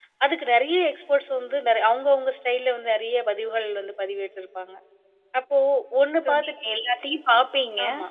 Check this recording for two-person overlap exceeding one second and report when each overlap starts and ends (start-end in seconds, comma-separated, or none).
none